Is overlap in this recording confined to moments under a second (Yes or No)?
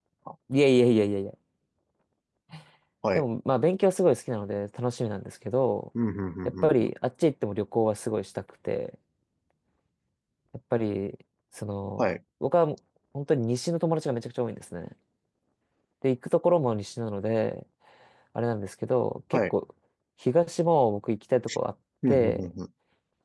Yes